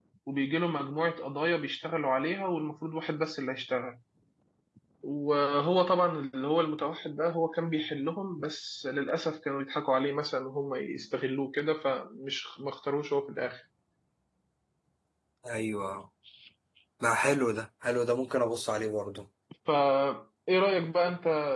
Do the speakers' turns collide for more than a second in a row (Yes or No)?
No